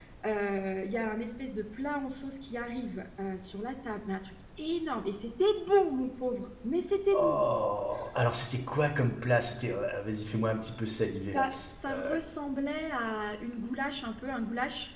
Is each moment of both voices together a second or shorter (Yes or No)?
Yes